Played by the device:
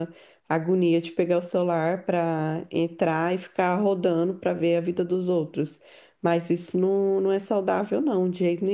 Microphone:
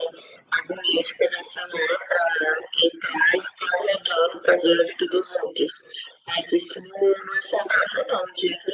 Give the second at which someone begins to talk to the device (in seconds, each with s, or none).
none